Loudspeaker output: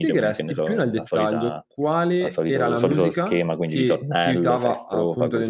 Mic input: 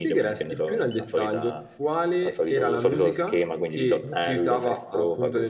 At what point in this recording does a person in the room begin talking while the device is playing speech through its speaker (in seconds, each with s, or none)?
none